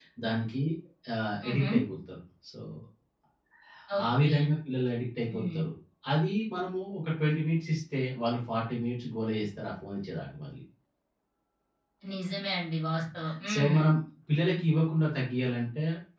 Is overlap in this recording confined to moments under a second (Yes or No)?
Yes